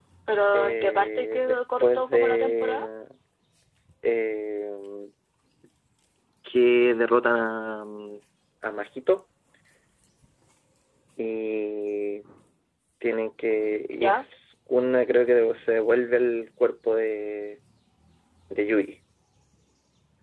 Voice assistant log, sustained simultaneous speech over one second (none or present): present